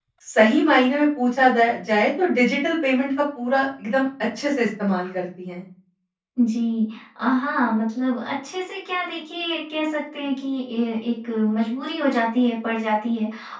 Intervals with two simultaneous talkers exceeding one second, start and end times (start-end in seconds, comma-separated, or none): none